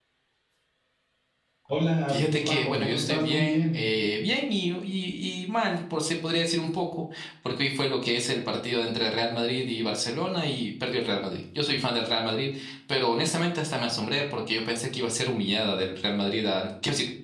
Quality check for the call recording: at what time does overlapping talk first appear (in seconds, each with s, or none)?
2.1 s